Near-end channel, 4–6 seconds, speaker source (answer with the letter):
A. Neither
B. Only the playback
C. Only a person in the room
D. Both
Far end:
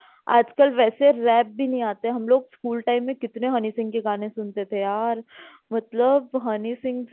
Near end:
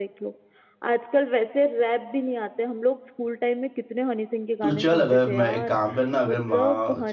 D